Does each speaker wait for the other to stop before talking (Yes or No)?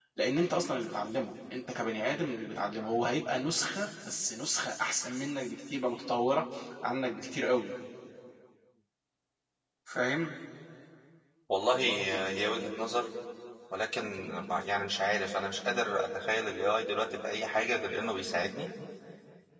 Yes